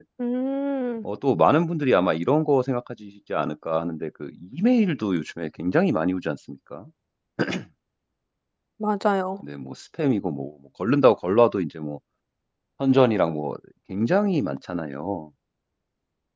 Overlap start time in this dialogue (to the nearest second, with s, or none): none